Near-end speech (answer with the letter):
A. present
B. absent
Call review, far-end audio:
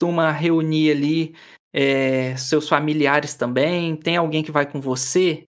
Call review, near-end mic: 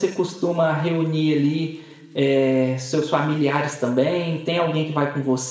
B